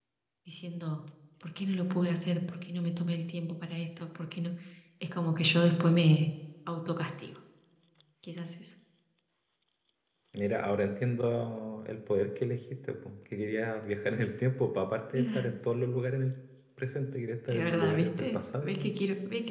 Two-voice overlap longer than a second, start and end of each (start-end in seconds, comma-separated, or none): 17.5-18.9